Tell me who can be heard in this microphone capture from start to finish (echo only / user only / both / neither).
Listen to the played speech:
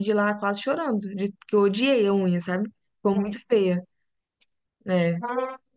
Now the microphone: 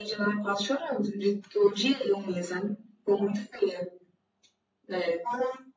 echo only